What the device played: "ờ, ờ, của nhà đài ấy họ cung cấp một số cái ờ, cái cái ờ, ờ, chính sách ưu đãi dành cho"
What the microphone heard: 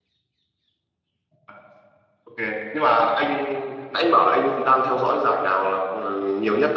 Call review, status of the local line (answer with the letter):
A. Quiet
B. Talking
B